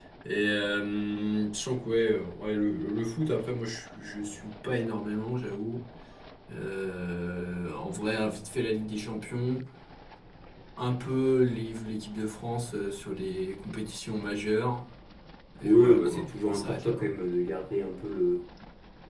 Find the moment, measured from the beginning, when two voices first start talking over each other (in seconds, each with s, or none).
15.6 s